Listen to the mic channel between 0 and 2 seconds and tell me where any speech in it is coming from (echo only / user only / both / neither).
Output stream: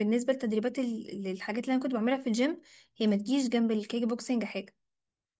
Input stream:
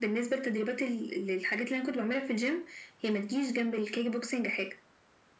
echo only